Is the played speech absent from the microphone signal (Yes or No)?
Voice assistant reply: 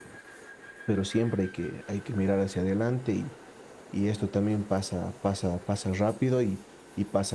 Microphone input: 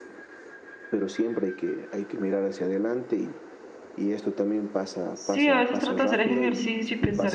No